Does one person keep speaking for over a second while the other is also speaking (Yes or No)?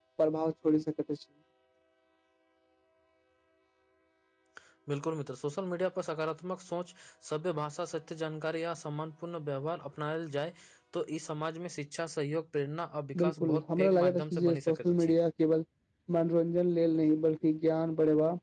Yes